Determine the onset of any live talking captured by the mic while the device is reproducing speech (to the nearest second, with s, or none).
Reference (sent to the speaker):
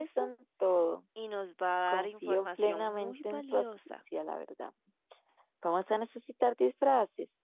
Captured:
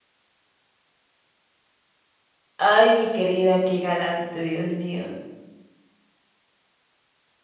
3 s